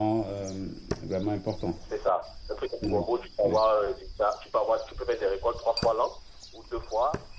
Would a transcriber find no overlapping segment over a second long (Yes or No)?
Yes